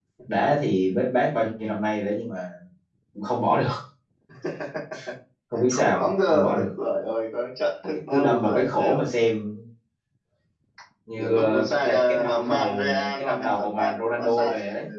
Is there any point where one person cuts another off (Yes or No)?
Yes